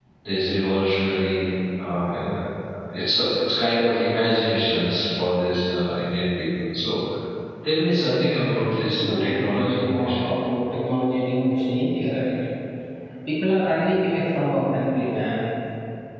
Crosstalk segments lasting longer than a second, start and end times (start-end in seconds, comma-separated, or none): 8.9-10.2